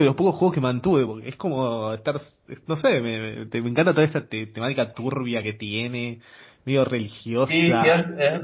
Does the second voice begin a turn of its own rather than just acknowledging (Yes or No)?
Yes